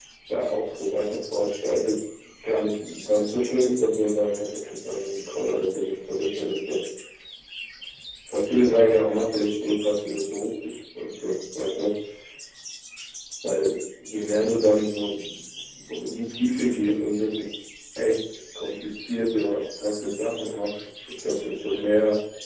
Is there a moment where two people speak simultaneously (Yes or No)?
No